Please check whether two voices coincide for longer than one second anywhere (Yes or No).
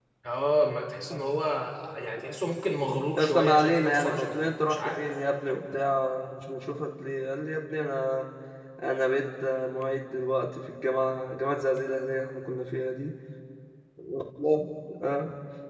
Yes